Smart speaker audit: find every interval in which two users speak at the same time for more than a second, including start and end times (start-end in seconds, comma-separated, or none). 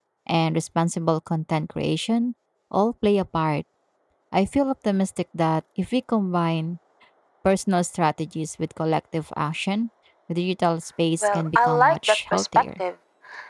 11.2-12.7